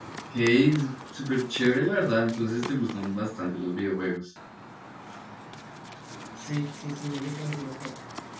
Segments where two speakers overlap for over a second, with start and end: none

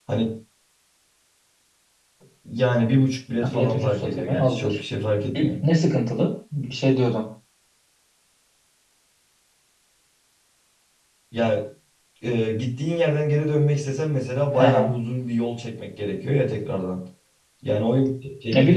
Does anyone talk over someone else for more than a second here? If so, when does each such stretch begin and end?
3.4-4.8

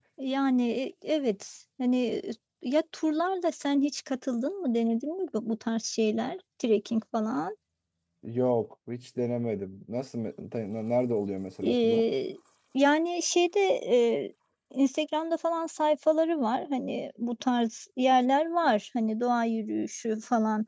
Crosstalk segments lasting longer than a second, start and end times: none

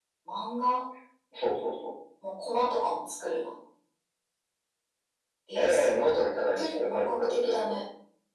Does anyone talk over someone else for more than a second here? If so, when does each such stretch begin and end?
6.5-7.8

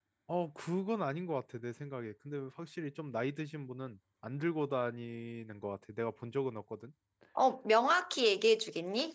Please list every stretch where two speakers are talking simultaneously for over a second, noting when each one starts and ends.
none

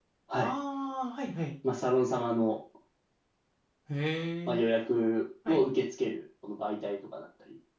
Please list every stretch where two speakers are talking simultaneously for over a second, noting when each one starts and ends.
none

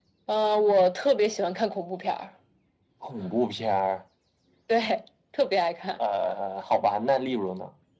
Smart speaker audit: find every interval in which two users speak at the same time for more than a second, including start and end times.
none

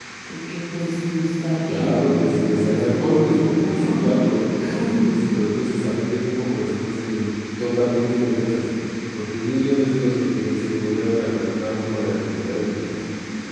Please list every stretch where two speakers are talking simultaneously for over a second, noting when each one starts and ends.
1.7-3.9

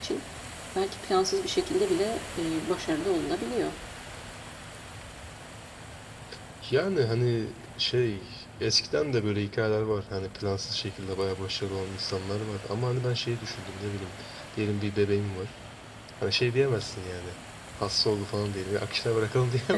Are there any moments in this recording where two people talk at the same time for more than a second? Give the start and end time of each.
none

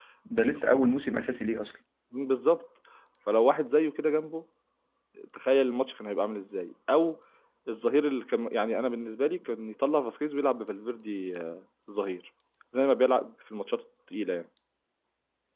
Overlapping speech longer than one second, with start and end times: none

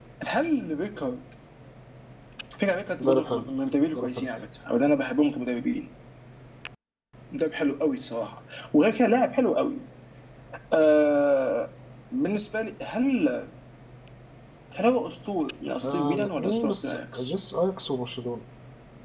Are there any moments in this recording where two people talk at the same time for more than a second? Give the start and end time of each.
15.8-17.3

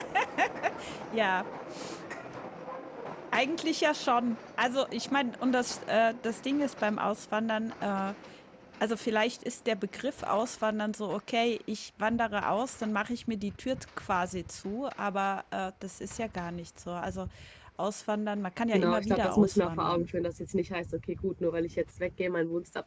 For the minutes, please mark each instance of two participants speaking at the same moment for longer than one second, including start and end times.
18.7-20.1

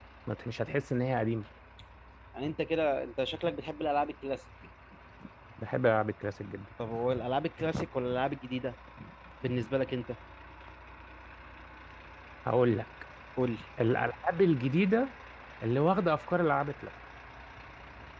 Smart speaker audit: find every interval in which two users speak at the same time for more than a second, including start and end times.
none

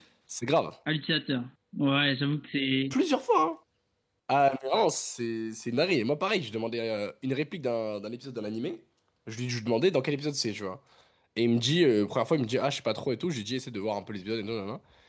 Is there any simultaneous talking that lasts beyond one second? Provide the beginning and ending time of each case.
none

